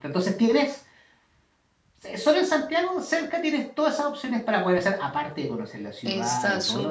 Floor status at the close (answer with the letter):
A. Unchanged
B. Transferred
B